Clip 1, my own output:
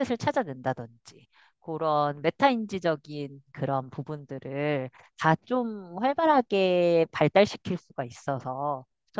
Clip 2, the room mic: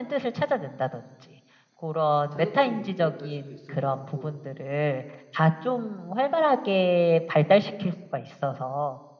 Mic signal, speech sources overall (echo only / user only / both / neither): both